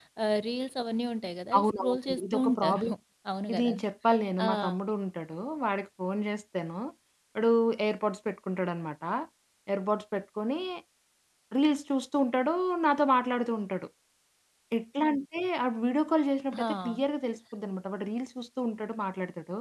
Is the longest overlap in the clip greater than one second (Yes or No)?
Yes